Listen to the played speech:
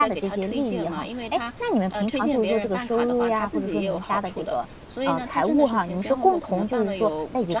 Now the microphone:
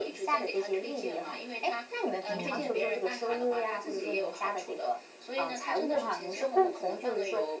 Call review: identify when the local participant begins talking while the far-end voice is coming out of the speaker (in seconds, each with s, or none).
2.3 s